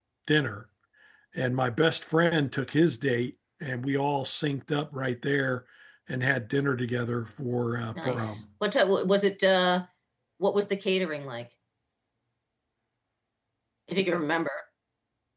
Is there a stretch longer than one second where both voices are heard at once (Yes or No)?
No